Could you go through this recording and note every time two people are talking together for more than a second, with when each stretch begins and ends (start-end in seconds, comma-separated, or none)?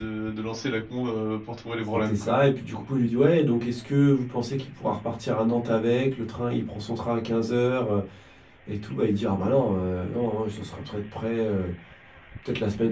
none